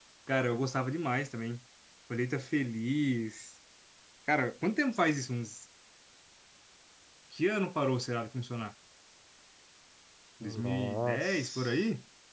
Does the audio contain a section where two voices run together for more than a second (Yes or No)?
Yes